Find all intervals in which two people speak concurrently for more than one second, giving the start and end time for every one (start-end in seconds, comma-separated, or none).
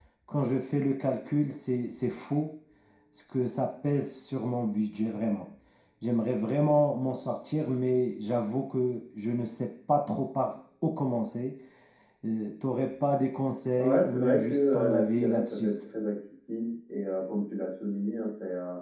13.8-15.7